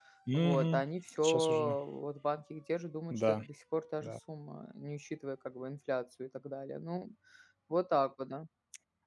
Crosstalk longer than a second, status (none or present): none